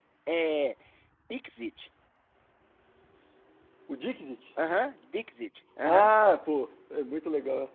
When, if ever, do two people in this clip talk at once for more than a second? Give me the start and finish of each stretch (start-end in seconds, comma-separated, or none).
none